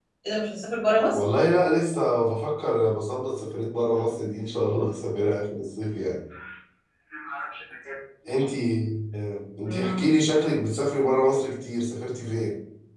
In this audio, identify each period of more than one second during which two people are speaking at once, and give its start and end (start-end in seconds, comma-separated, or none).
none